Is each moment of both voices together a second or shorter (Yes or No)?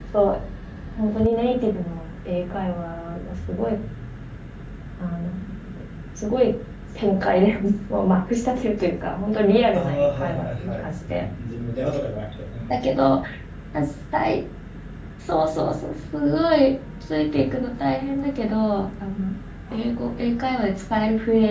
No